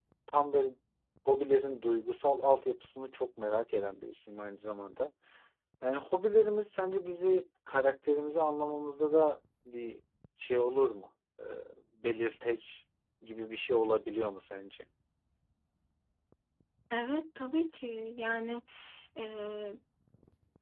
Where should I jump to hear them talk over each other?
none

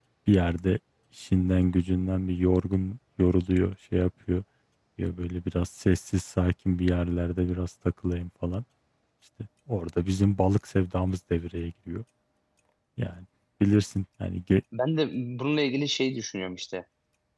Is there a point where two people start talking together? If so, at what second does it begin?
none

